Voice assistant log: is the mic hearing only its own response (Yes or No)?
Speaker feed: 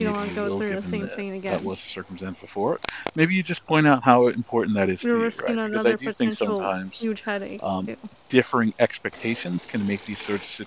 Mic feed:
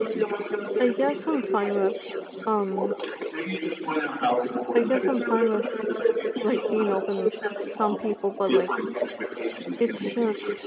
No